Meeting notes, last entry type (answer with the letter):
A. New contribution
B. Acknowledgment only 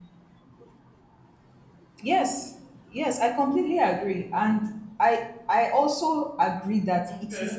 B